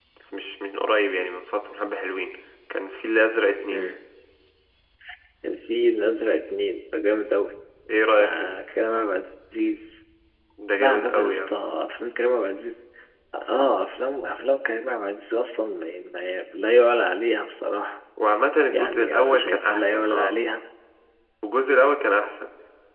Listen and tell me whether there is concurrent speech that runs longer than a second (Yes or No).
Yes